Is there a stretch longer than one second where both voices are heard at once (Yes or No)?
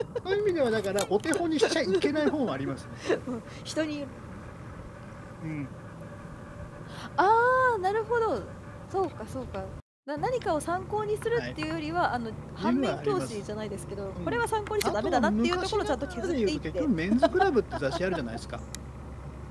Yes